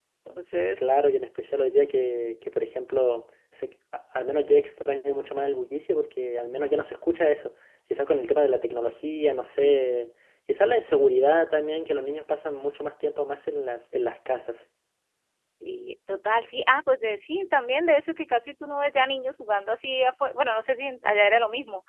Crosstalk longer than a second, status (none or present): none